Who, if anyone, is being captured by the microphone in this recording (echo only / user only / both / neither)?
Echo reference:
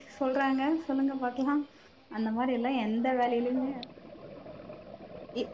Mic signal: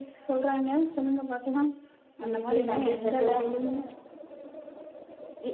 both